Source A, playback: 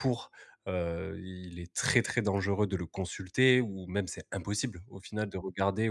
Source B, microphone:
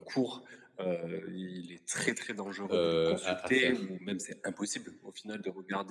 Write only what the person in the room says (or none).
heu, à à faire.